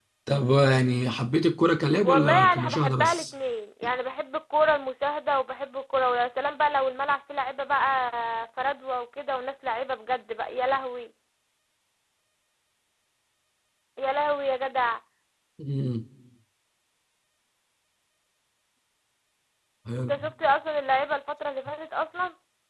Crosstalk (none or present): present